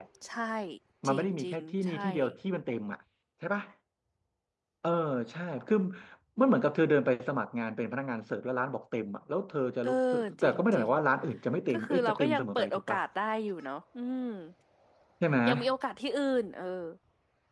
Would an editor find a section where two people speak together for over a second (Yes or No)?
Yes